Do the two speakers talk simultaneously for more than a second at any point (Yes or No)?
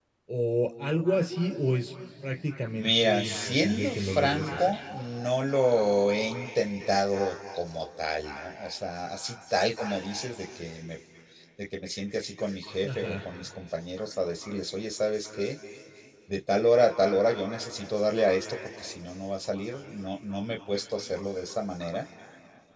Yes